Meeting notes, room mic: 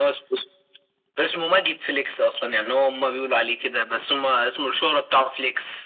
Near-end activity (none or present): none